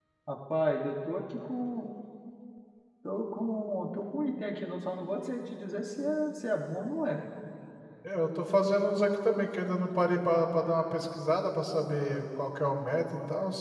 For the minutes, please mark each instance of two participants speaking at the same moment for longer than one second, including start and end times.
none

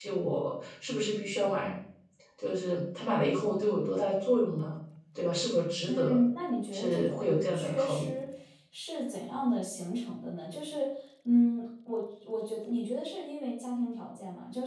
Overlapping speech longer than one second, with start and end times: 6.7-8.1

